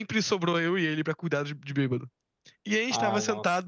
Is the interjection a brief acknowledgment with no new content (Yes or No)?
Yes